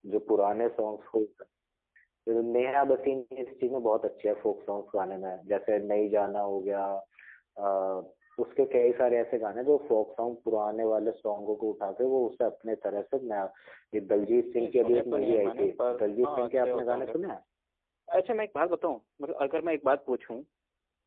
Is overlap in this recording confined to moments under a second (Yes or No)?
No